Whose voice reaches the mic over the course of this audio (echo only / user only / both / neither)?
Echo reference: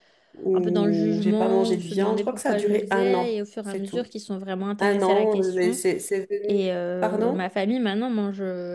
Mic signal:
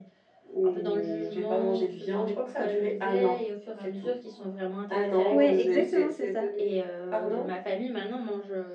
both